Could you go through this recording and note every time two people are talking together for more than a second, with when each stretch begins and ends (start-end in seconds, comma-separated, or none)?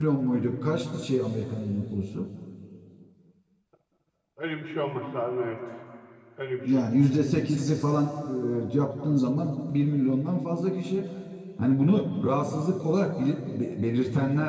none